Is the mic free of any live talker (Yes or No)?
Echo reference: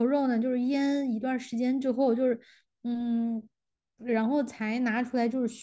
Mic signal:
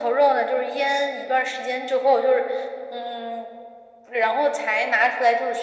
Yes